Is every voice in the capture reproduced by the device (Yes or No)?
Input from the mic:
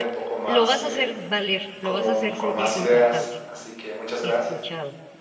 No